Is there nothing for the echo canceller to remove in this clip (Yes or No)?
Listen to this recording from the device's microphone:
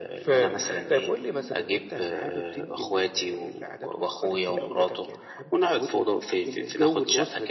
No